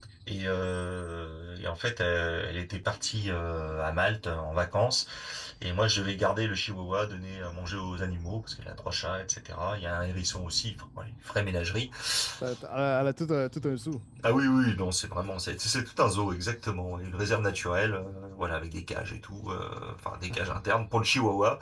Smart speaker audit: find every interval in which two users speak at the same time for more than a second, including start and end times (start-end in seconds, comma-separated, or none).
none